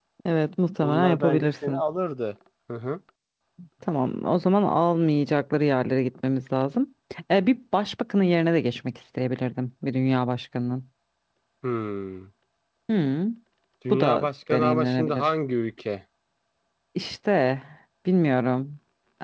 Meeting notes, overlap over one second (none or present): present